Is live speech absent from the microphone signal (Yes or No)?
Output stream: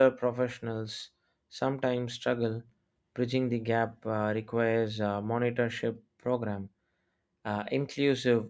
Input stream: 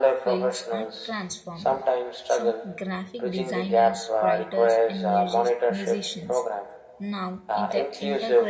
No